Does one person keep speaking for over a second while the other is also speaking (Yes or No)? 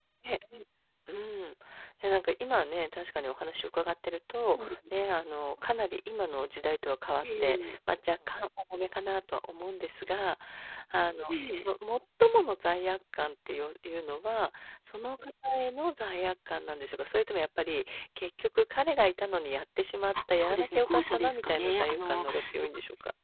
Yes